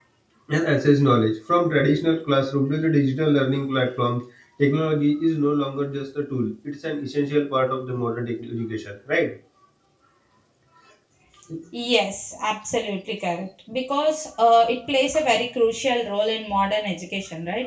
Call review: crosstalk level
none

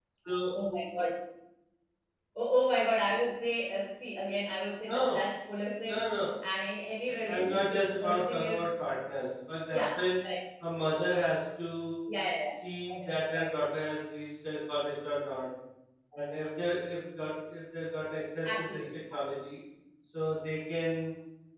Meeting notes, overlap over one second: present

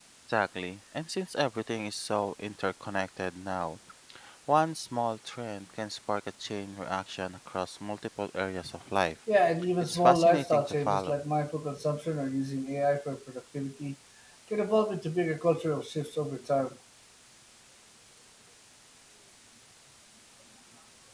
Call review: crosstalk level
present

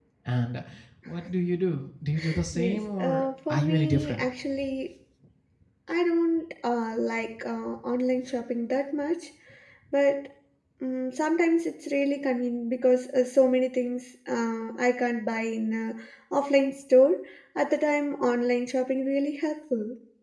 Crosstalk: present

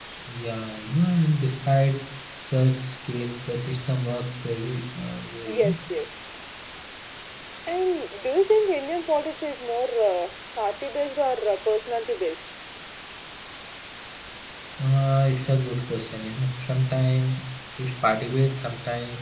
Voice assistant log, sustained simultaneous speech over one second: none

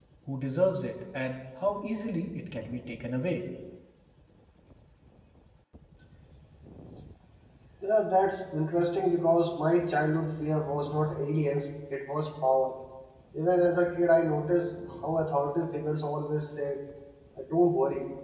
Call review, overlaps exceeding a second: none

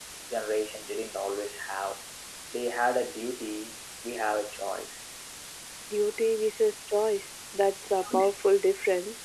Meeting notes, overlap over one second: none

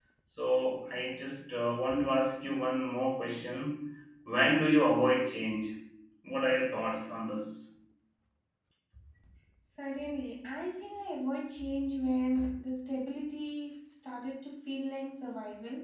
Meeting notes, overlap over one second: none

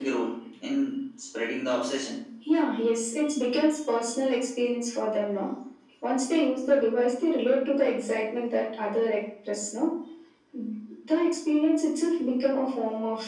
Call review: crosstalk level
none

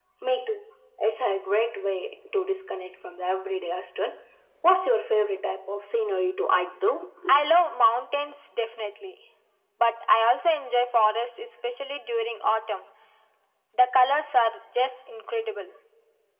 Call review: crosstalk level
none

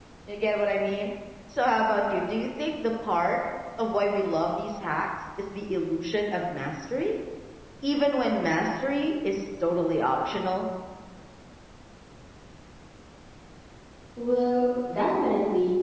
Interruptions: none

